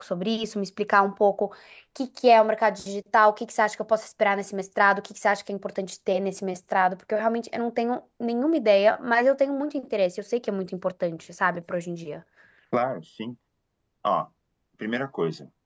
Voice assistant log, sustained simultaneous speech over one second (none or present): none